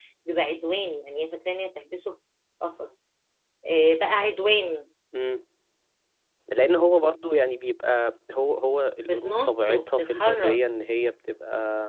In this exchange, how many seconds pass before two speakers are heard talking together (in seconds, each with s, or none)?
9.1 s